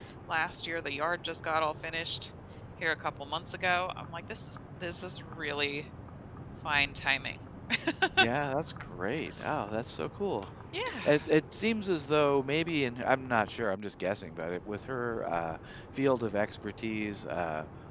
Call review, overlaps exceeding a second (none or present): none